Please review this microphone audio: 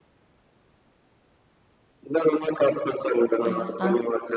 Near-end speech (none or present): present